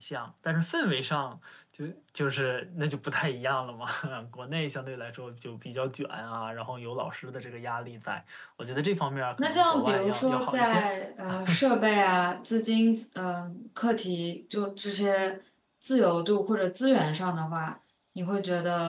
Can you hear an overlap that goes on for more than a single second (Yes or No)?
Yes